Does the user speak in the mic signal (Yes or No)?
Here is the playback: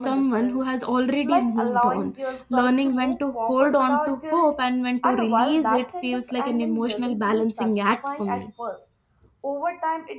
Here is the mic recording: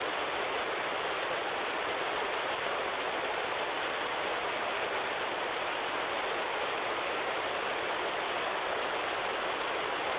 No